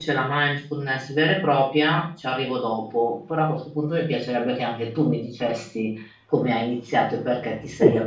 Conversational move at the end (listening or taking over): listening